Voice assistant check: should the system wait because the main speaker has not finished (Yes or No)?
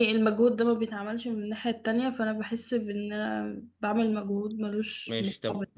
No